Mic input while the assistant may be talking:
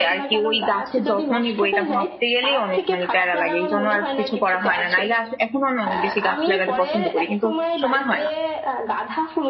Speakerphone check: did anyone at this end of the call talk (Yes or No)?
Yes